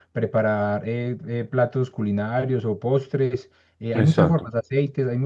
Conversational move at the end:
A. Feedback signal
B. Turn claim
A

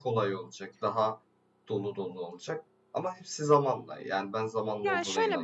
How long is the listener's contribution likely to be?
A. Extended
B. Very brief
A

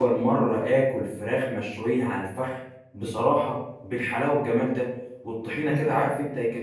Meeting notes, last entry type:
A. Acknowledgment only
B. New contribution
A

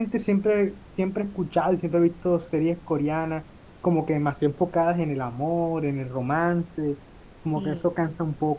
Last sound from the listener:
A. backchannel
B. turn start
A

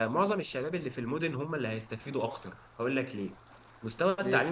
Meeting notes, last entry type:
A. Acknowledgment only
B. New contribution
A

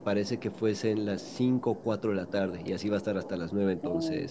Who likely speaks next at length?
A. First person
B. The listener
B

